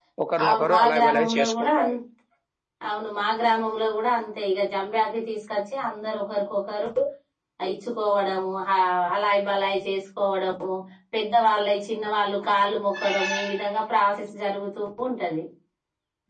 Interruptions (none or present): present